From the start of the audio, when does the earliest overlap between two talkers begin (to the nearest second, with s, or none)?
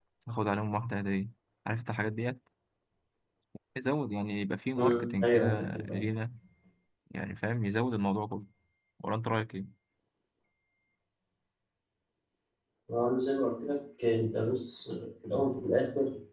5 s